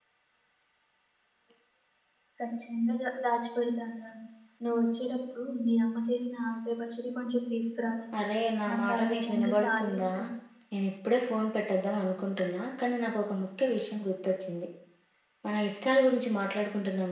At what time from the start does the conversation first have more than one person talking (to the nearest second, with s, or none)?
9 s